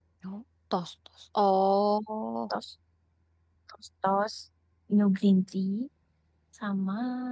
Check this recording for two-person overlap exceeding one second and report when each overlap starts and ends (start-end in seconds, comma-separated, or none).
none